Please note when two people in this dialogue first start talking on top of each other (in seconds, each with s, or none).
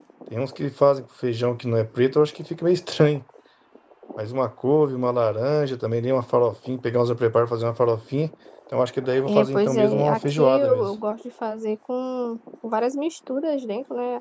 9.3 s